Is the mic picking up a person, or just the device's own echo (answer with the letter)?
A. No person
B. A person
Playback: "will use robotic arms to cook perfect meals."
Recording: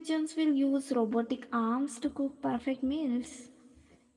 A